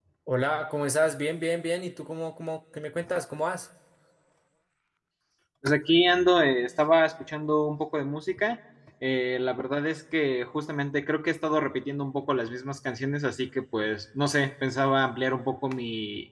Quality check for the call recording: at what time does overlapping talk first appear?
none

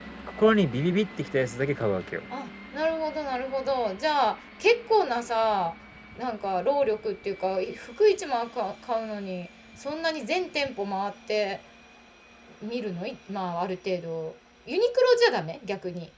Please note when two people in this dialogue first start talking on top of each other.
none

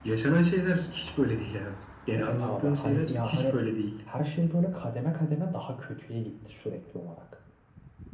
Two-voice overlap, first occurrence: 2.2 s

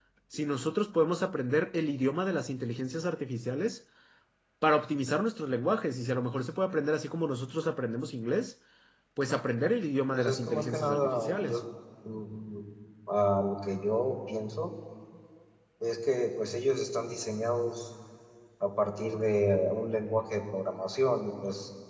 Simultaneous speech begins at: 10.1 s

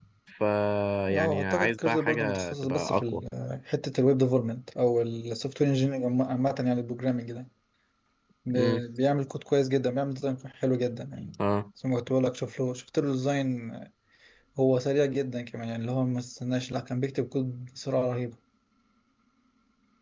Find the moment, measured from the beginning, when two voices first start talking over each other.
1.1 s

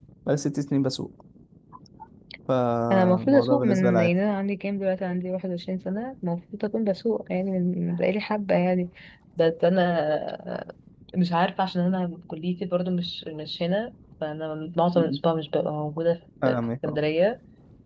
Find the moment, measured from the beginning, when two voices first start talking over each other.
2.9 s

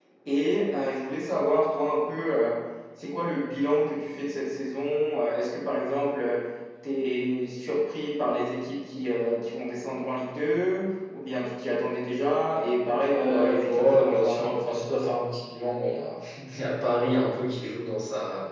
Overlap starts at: 13.1 s

